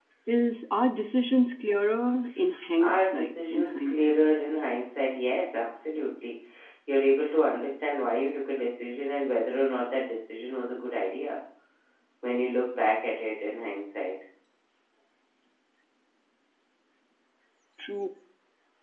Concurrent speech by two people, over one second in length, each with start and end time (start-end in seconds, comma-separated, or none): 2.8-4.2